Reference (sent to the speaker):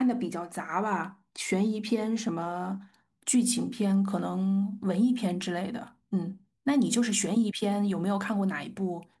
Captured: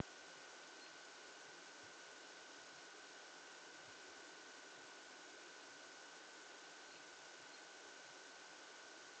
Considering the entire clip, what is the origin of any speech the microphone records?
neither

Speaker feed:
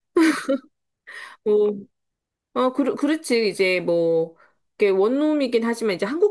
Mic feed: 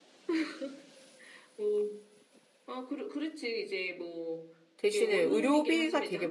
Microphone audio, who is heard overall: both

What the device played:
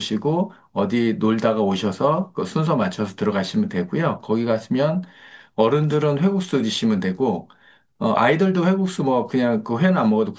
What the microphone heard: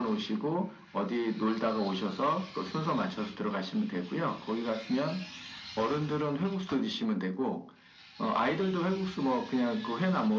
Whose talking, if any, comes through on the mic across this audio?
echo only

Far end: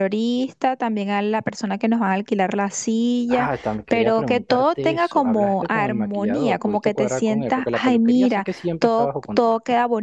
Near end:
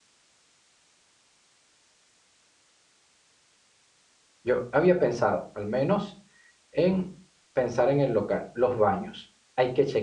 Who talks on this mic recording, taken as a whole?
user only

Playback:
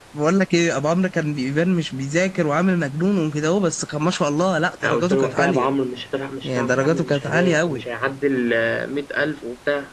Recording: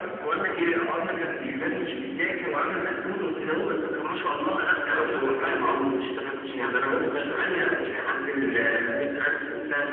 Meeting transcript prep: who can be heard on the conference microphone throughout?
echo only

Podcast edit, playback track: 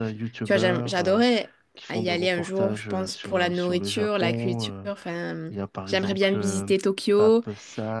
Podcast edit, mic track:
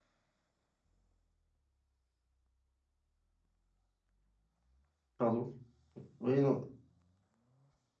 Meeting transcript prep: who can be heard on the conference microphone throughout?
user only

